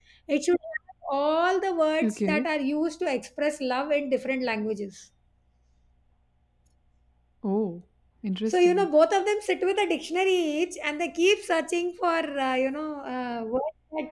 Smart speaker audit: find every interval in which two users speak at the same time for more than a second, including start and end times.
none

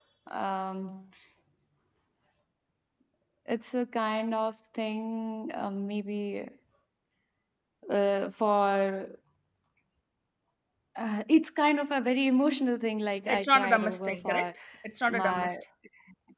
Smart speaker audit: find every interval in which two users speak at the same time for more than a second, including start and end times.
13.3-14.5

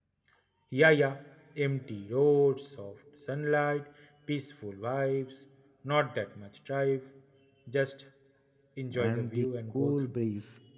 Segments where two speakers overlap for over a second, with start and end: 8.9-10.2

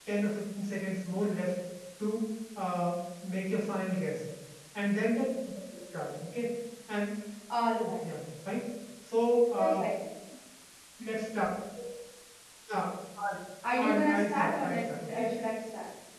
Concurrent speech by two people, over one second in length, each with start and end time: 13.8-15.3

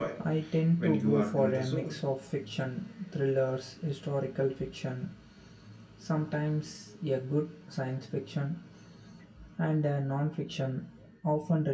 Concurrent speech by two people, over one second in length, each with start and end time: 0.8-2.0

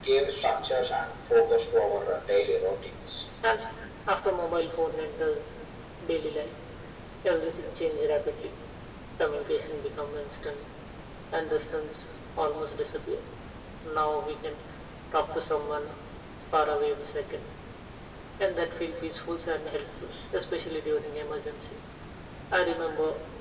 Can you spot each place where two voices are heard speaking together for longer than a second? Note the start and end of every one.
none

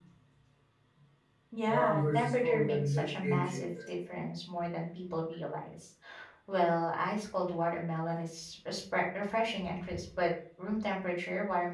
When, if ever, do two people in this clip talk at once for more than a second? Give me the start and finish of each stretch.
1.6-3.9

